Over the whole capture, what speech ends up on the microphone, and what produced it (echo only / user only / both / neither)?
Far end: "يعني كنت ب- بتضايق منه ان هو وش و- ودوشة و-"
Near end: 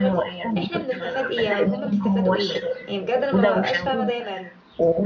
both